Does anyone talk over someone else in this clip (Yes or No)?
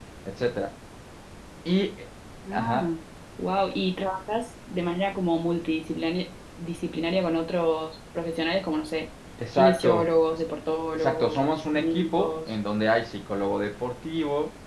Yes